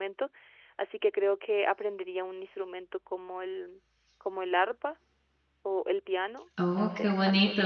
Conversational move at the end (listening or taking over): taking over